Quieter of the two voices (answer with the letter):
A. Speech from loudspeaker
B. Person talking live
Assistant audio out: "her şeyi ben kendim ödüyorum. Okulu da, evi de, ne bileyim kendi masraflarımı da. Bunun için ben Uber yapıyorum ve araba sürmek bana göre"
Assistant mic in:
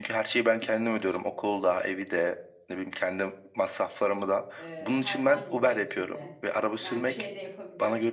B